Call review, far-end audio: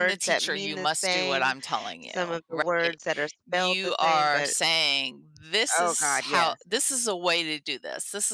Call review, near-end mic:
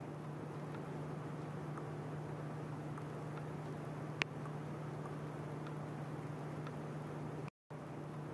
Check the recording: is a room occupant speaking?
No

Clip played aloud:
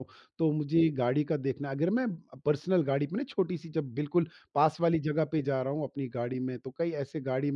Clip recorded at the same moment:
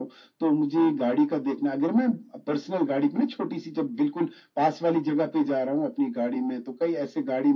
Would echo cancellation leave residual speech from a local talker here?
No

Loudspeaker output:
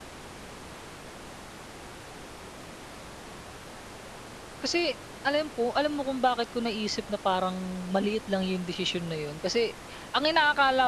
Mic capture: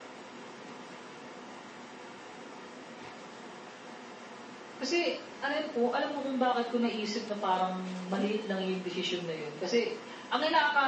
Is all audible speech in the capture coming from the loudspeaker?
Yes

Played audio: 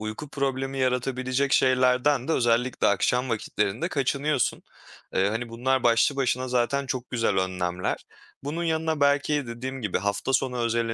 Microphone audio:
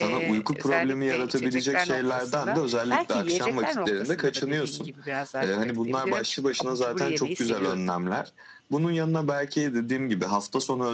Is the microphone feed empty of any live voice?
No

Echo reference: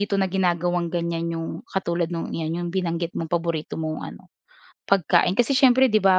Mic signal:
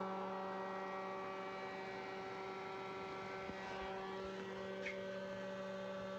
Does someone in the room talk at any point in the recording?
No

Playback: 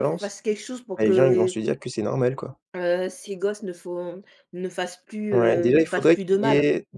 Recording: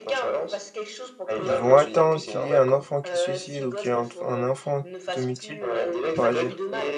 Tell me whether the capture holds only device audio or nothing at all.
No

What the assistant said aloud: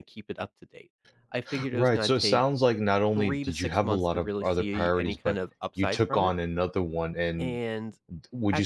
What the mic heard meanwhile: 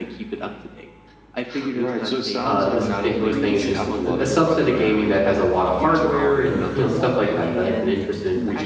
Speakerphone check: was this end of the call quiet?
No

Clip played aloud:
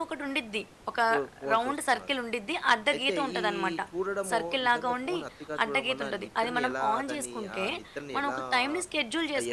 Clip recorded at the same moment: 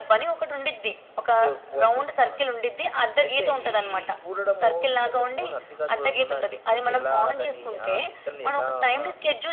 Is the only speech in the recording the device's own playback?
Yes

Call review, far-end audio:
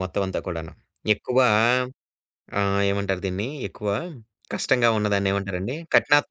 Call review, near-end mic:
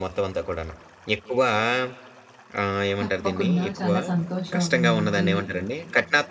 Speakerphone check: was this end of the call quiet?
No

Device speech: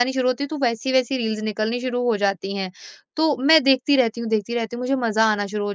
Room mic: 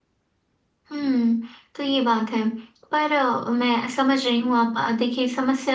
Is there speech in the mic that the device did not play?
Yes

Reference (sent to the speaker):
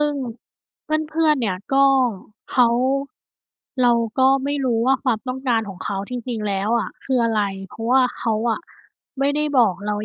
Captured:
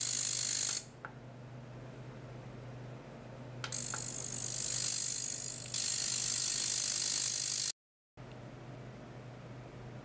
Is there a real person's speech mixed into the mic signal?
No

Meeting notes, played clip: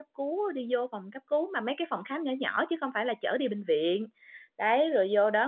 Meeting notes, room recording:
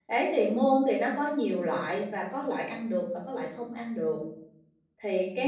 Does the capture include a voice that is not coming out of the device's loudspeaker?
Yes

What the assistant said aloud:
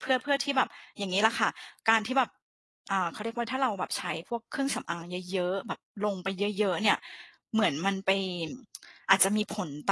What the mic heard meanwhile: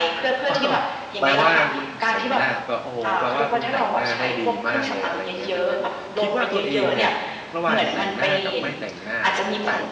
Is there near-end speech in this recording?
Yes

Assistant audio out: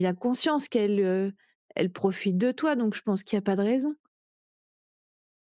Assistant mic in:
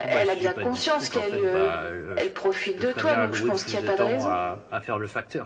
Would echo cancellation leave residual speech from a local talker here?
Yes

